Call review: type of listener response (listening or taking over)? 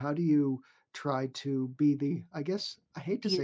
listening